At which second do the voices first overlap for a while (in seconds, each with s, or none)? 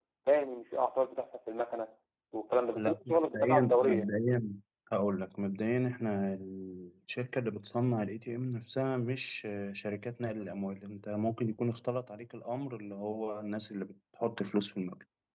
2.8 s